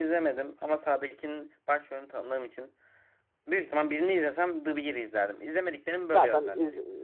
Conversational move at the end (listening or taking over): taking over